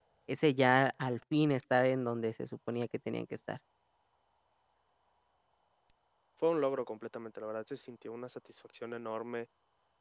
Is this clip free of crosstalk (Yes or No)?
Yes